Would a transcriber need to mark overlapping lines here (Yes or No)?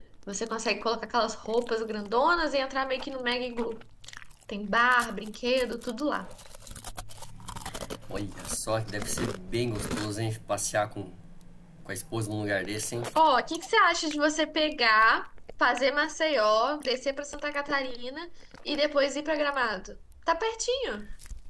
No